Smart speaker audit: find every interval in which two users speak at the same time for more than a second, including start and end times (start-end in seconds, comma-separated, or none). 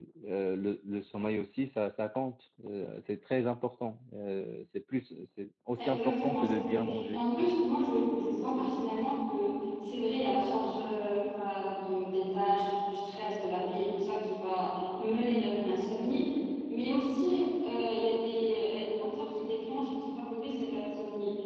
5.9-7.2